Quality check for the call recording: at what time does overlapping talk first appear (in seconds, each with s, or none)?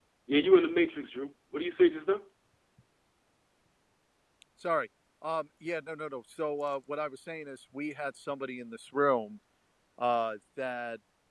none